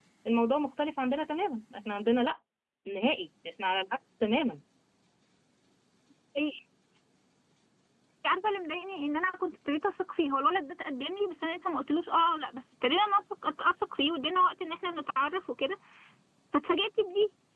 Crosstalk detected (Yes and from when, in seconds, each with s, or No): No